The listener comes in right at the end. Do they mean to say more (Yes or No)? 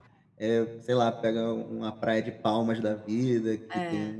No